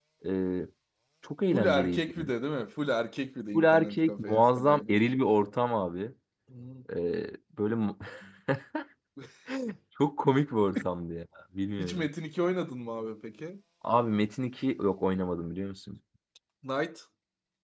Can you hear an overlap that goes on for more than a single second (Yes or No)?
Yes